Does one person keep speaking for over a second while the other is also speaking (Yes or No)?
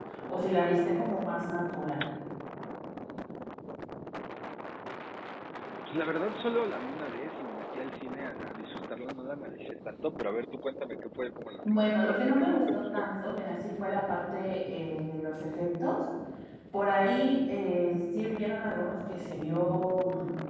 Yes